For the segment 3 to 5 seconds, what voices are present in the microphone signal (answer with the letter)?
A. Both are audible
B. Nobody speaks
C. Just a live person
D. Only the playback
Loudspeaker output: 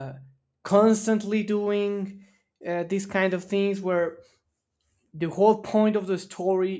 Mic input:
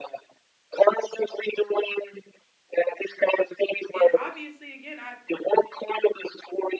A